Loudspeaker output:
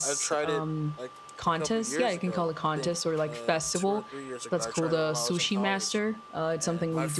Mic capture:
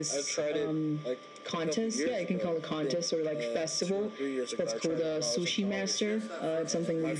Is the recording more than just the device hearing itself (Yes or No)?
Yes